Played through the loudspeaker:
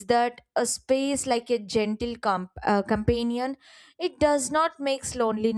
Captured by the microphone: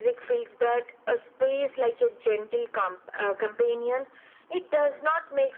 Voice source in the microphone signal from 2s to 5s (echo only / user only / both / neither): echo only